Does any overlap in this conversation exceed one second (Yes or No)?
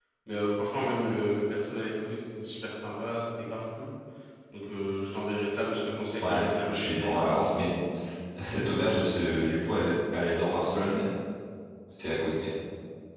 Yes